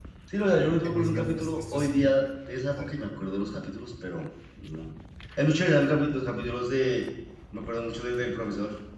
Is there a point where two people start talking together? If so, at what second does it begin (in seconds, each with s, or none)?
0.8 s